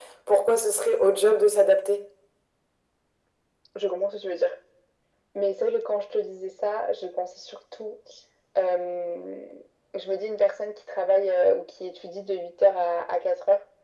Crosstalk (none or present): none